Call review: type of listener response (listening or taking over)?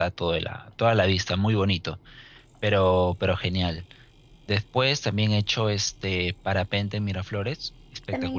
listening